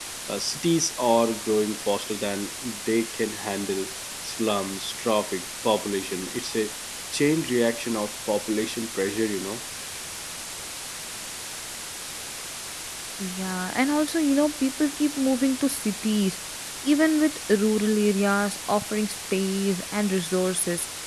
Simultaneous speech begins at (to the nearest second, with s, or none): none